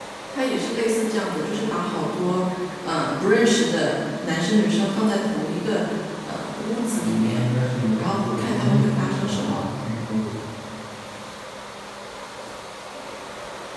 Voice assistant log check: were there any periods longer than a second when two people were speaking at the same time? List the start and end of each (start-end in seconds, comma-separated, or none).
8.0-9.6